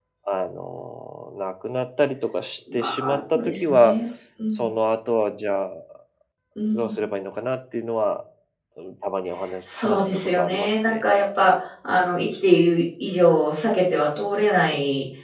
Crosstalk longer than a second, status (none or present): present